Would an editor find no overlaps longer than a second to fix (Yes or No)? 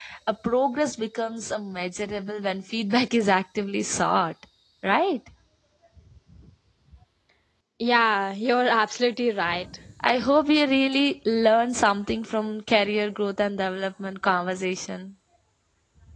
Yes